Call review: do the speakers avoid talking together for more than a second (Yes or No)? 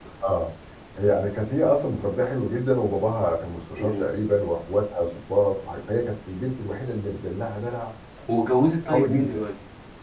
Yes